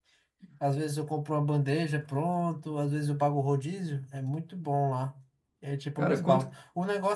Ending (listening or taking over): listening